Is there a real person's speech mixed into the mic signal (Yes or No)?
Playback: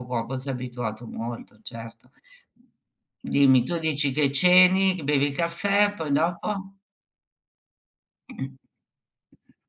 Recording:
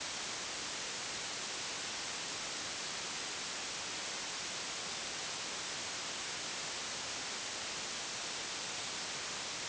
No